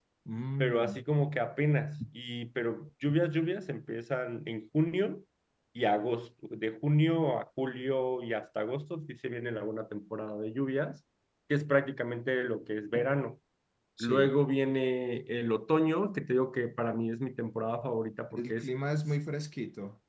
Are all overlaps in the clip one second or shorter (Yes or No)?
Yes